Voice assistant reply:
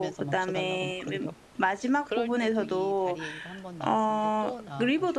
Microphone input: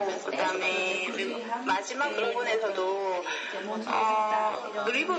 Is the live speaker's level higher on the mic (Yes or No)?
No